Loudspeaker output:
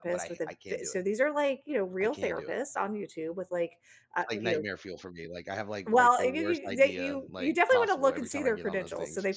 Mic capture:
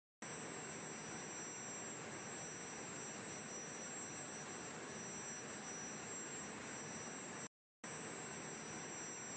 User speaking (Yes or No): No